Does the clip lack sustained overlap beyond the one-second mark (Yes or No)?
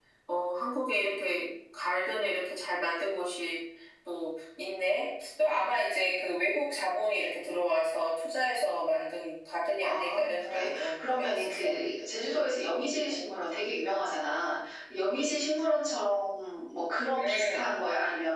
No